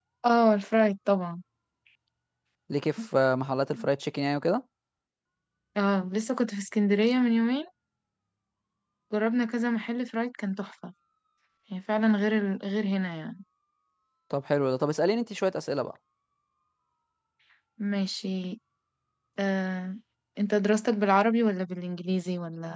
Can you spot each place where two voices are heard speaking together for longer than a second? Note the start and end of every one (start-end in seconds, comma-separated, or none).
none